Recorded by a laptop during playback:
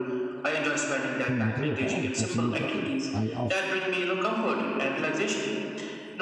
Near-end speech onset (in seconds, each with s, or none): 1.3 s